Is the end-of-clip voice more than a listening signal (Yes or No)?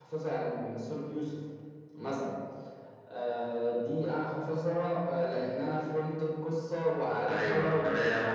Yes